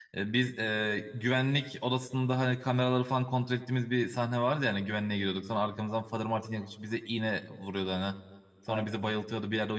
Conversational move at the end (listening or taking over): listening